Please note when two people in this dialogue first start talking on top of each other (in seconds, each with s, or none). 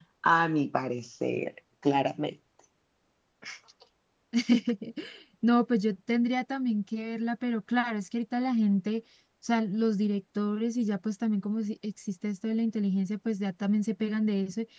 none